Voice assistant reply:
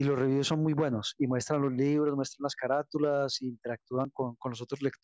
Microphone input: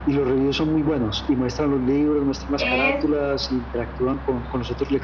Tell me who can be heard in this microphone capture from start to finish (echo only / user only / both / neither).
both